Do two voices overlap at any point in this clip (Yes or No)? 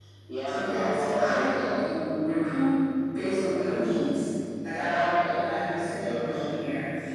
Yes